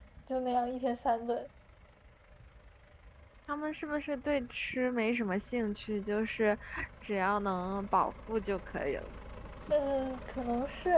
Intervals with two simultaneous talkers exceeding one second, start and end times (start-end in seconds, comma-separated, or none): none